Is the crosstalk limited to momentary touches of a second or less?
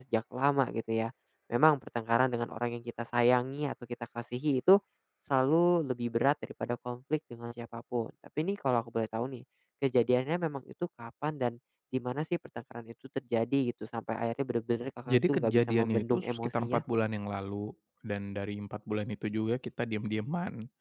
No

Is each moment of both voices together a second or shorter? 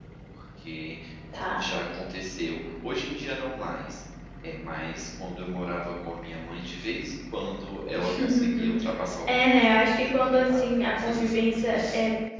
No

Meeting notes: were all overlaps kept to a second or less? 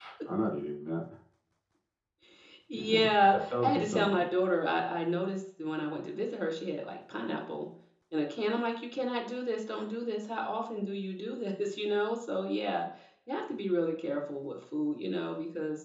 No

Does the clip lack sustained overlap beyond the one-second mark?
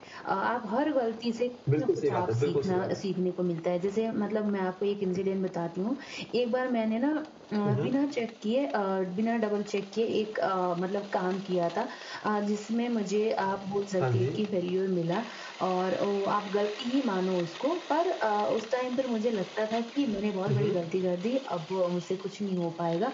No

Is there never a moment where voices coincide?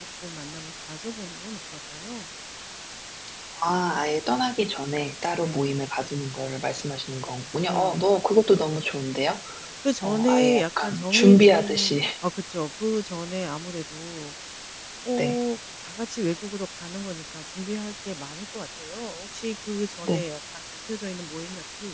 No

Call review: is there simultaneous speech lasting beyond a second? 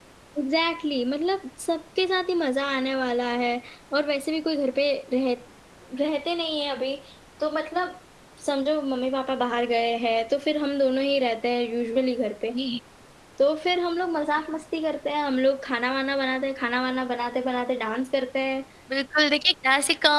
No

